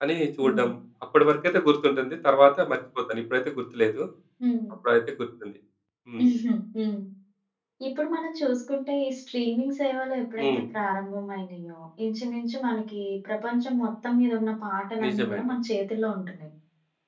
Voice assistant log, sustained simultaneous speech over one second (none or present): none